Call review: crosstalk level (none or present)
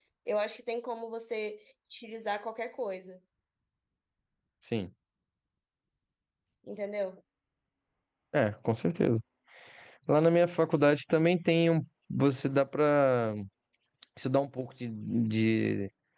none